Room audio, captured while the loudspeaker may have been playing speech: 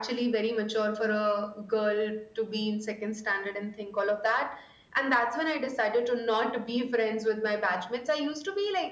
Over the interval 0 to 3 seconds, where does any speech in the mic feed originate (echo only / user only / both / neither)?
echo only